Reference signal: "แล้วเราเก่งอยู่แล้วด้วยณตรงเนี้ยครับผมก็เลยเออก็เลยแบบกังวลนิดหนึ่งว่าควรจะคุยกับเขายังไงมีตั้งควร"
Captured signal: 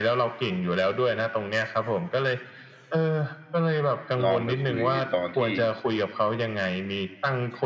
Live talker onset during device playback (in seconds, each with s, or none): 4.2 s